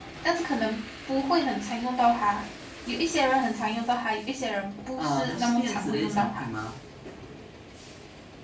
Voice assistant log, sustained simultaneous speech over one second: present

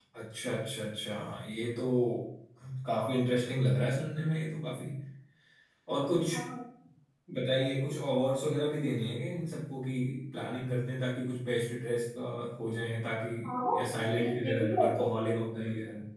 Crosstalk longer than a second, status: present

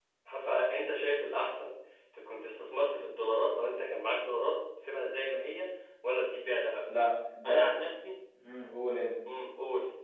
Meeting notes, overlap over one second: none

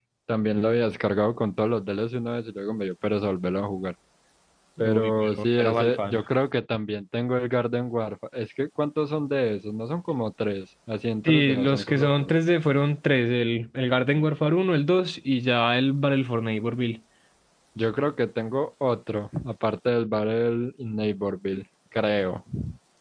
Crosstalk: present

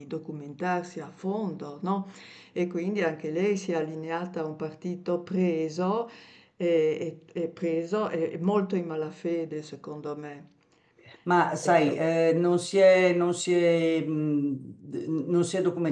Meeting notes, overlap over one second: none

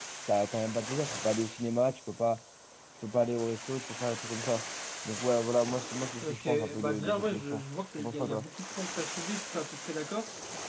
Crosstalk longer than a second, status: present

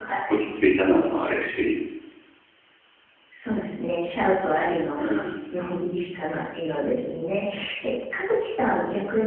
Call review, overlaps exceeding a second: none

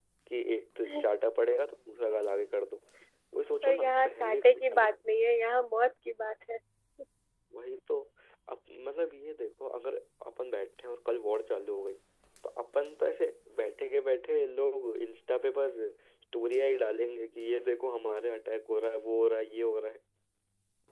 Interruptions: present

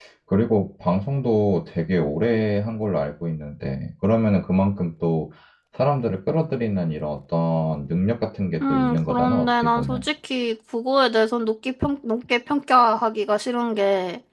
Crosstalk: present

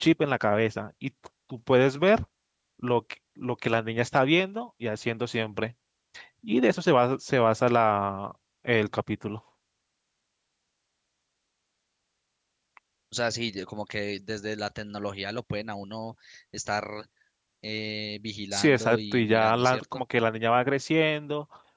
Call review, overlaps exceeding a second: present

